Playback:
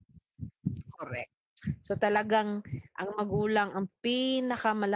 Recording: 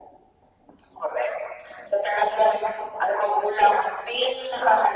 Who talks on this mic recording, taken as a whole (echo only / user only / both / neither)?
echo only